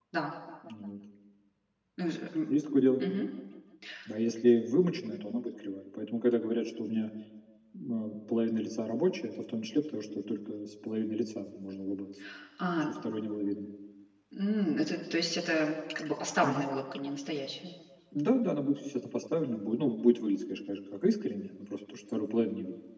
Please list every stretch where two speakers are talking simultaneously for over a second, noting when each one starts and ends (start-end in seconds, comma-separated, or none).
none